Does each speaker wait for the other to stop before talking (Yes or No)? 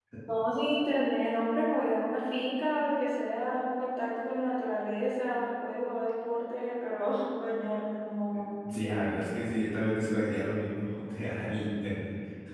Yes